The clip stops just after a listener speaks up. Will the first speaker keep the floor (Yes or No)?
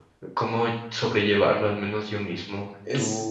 Yes